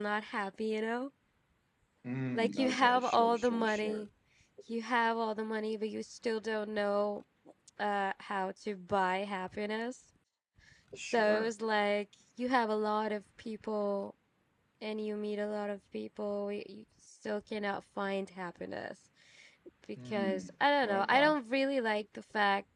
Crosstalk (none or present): present